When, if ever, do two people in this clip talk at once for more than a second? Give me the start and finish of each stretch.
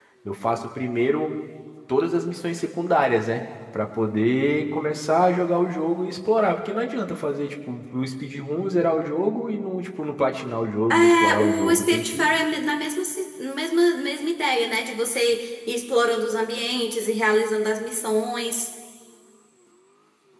10.9-12.4

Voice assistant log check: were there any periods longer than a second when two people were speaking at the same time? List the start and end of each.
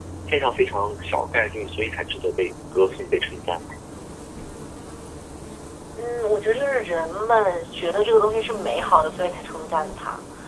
none

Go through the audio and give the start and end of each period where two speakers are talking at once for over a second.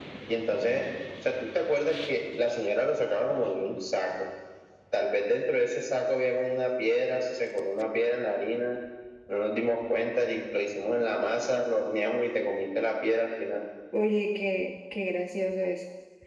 none

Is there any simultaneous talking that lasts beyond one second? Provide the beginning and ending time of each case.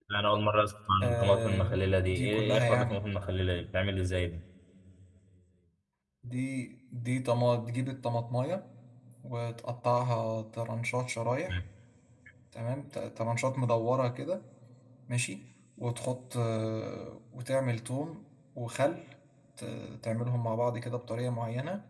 1.0-3.0

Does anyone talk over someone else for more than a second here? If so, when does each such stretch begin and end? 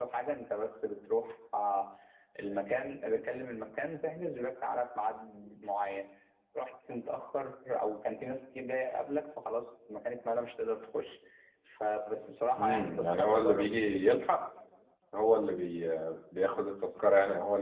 12.6-14.0

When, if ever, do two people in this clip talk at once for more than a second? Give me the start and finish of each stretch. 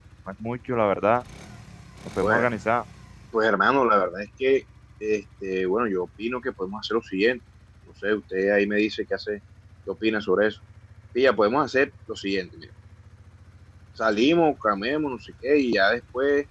none

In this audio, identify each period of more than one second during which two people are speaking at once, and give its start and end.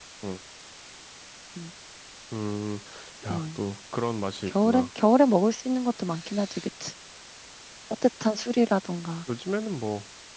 none

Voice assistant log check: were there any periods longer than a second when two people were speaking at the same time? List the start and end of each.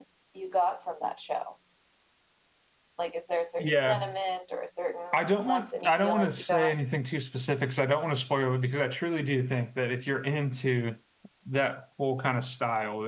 5.1-6.7

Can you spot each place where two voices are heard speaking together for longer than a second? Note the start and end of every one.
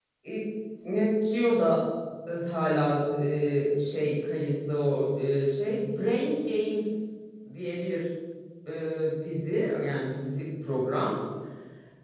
none

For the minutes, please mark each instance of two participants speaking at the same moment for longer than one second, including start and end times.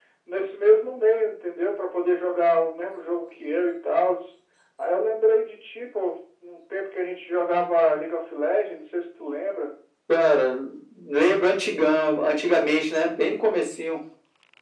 none

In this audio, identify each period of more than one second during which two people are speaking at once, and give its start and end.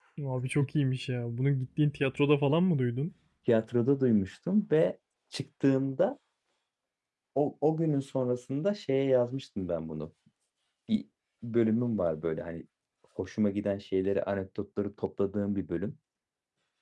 none

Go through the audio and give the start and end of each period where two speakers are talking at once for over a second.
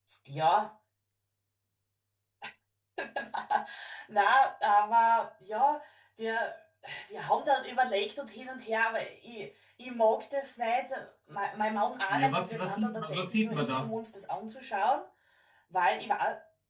12.1-13.9

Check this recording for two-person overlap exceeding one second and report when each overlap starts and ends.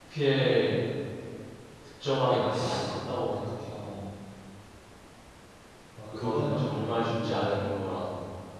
6.0-7.6

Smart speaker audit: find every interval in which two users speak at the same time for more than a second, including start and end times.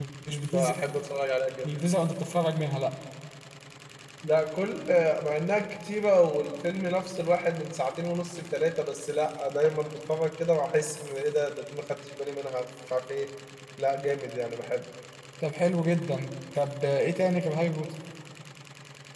none

